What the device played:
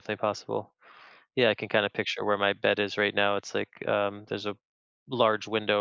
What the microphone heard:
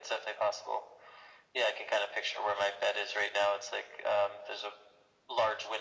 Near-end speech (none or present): none